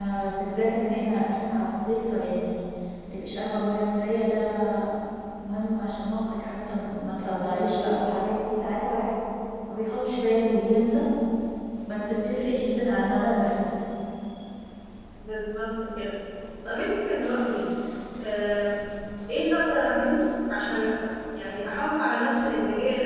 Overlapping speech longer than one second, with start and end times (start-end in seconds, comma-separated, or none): none